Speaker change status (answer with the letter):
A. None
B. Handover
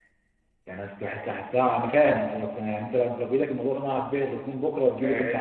B